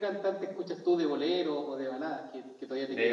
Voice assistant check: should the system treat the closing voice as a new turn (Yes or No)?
Yes